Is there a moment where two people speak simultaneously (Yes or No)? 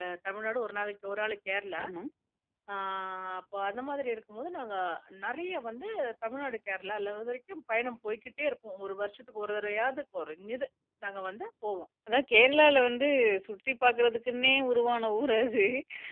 No